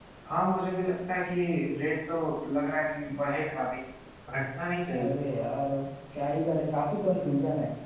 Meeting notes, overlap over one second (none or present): none